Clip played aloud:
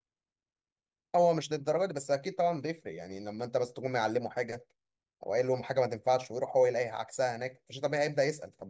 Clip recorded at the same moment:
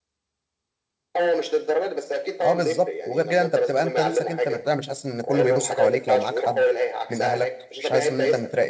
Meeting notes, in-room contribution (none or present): present